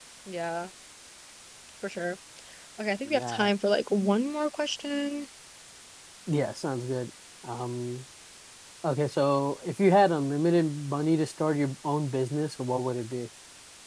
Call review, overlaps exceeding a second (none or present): none